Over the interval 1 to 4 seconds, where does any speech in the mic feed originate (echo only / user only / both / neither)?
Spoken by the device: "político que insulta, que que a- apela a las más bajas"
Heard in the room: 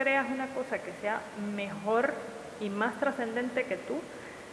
user only